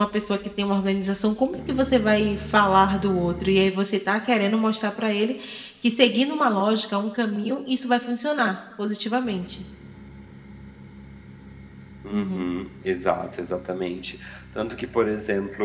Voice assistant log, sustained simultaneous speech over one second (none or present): none